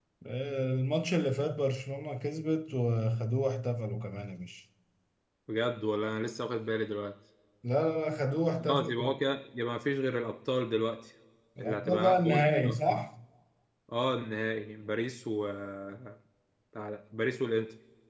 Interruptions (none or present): present